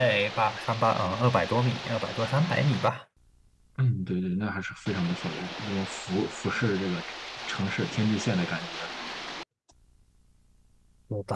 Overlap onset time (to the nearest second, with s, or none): none